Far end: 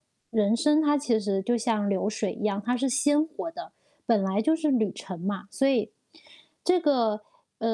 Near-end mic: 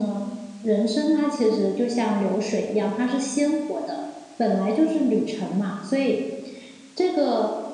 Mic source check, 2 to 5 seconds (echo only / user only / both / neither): echo only